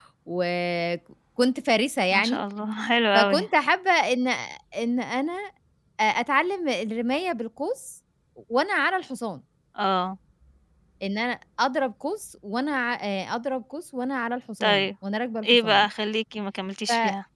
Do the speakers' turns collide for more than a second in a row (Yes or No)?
No